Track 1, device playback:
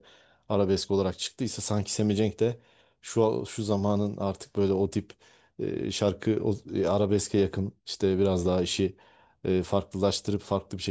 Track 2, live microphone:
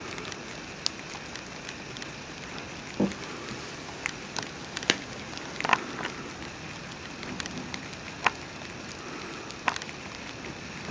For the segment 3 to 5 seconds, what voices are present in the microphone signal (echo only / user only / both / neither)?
neither